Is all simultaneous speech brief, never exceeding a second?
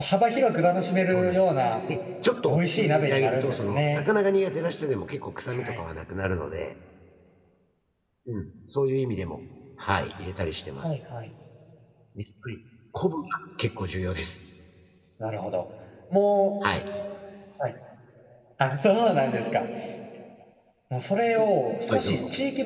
No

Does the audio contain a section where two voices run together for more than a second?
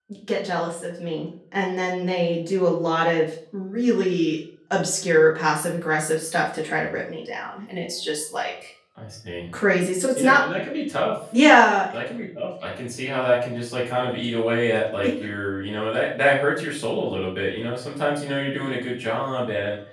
No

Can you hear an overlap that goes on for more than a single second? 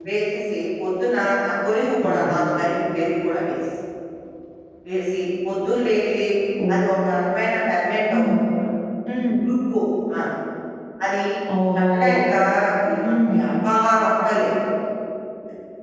No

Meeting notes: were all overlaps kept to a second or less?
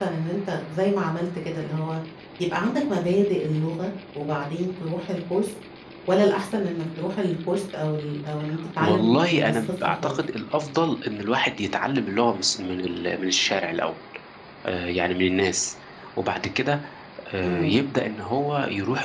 No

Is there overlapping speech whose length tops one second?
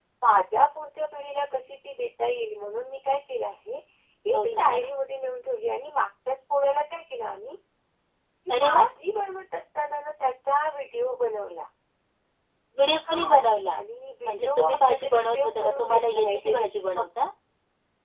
Yes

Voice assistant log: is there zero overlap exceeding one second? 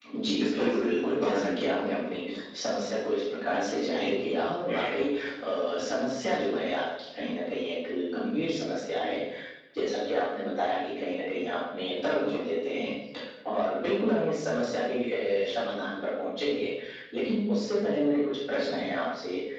No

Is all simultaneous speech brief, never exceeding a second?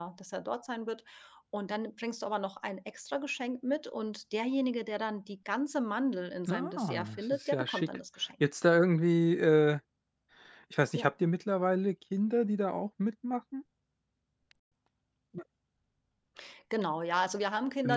No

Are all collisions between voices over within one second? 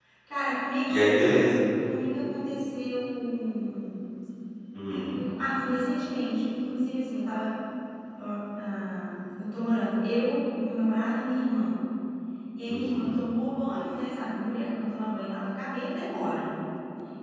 Yes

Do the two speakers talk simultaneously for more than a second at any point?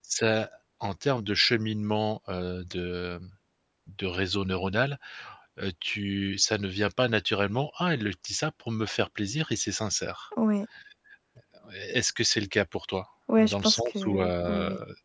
Yes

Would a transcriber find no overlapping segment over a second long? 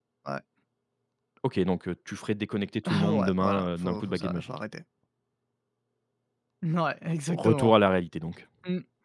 No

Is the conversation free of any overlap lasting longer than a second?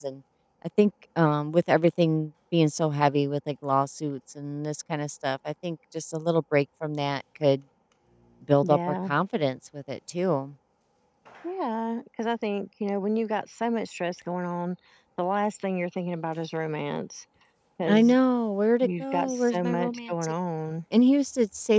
No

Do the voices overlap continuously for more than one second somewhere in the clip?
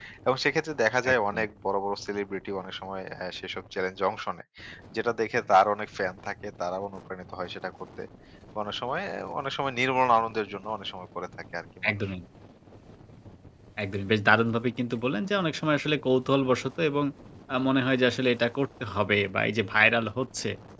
No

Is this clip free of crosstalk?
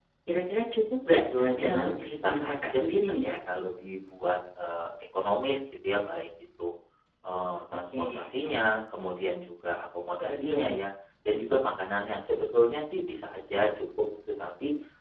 No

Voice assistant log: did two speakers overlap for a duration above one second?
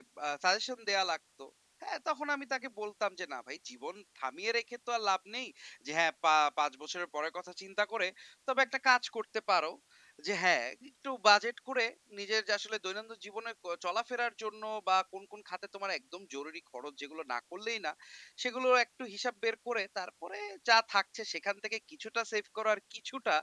No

